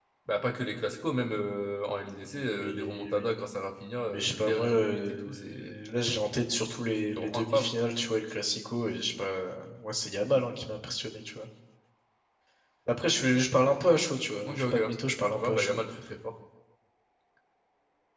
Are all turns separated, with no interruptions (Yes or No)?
No